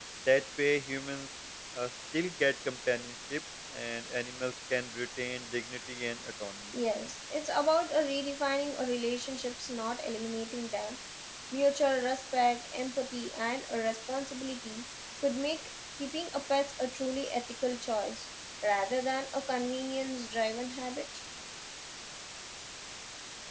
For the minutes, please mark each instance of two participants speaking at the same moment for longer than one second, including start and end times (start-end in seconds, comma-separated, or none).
none